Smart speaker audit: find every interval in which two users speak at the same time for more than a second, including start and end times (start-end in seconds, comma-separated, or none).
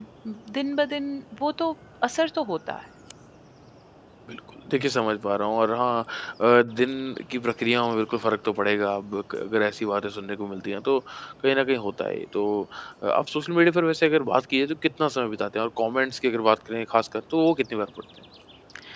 none